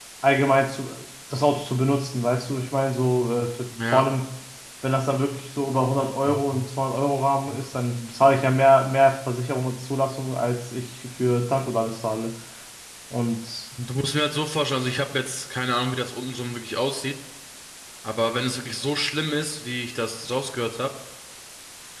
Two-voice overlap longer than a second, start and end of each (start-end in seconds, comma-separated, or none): none